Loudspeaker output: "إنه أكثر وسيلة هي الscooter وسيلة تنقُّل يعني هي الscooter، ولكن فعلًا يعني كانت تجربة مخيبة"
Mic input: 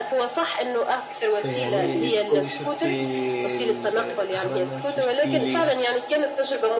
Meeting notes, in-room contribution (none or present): present